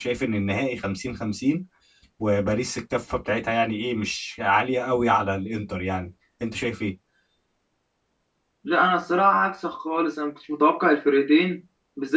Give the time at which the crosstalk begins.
none

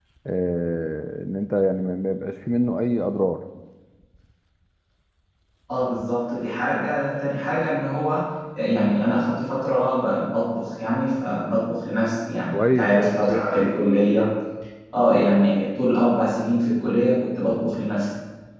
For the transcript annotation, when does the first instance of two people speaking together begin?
12.5 s

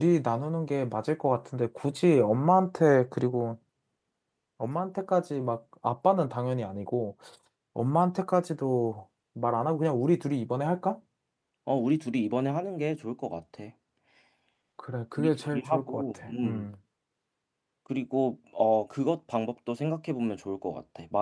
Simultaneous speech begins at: 15.2 s

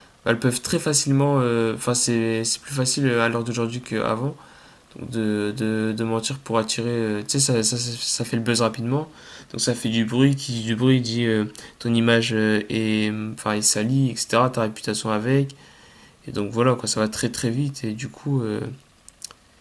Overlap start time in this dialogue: none

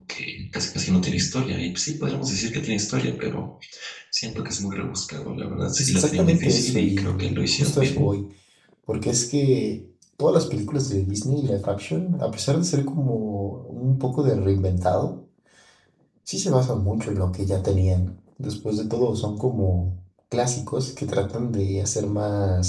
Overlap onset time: 5.8 s

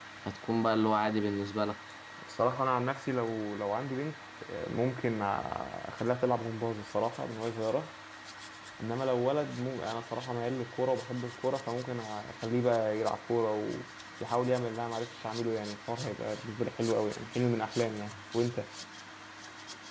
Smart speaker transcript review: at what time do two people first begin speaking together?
none

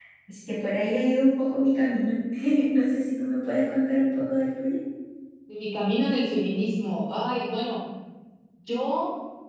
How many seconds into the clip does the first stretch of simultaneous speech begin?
none

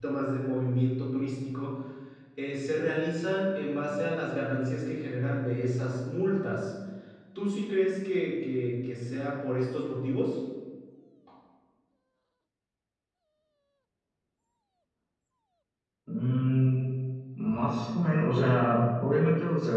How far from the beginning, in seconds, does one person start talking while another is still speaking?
none

